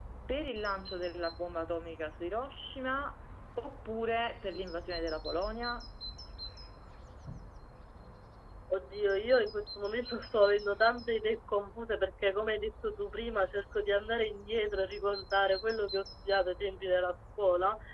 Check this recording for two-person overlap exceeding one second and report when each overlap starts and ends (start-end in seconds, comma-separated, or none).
none